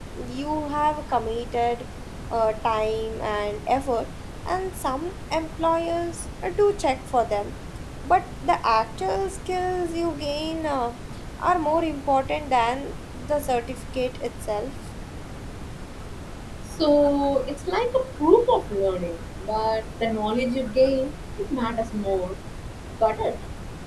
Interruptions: none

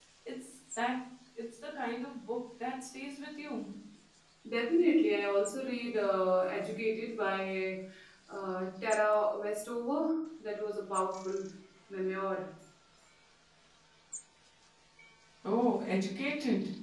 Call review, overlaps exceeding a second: none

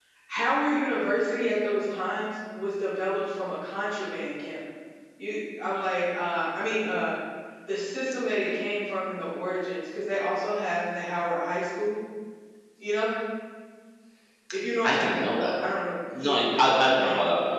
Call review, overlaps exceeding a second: present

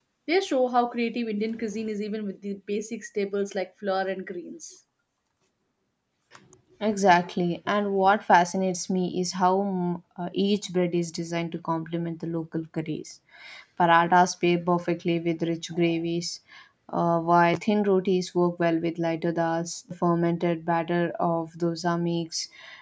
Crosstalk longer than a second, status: none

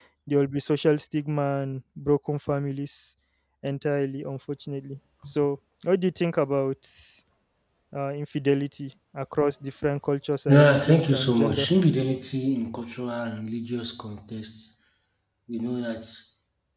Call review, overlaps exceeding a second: present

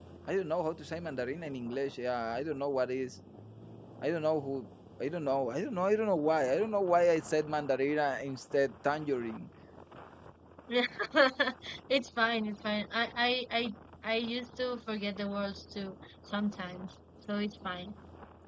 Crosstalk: none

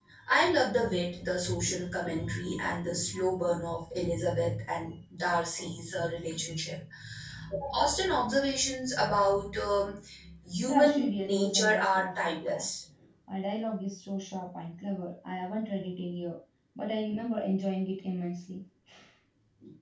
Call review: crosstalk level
present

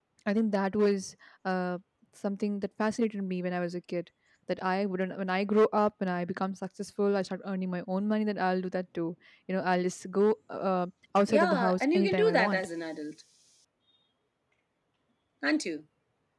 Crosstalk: present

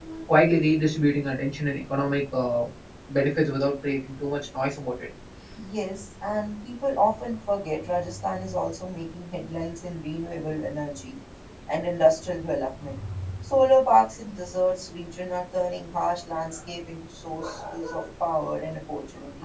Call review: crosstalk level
none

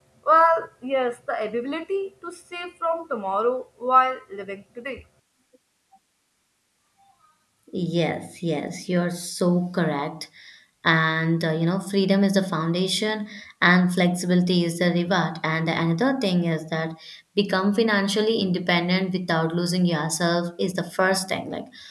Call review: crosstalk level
none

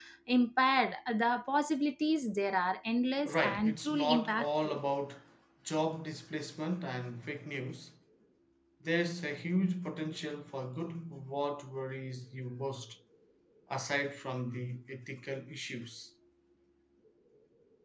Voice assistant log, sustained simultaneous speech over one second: present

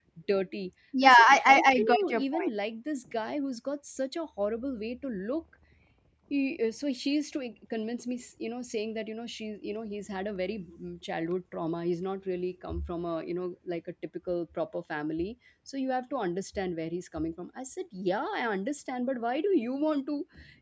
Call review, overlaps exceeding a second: present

